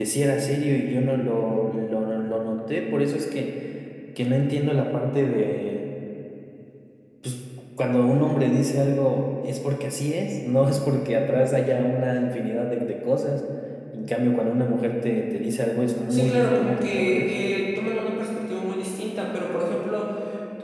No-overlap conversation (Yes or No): No